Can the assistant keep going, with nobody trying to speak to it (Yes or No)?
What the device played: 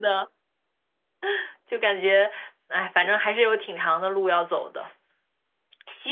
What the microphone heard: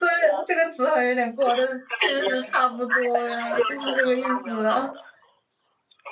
No